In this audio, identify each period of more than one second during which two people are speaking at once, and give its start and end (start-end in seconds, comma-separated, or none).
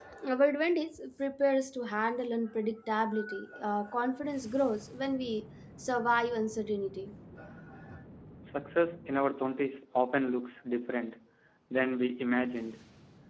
none